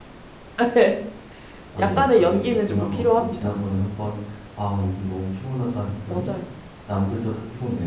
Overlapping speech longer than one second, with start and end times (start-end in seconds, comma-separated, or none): 1.8-3.6